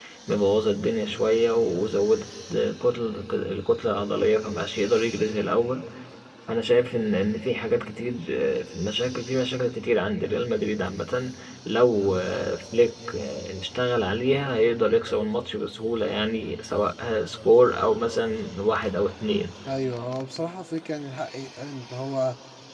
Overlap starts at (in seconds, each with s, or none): none